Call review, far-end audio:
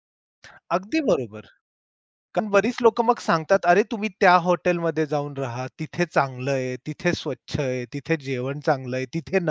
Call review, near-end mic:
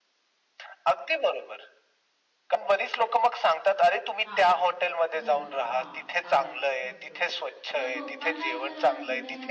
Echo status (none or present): present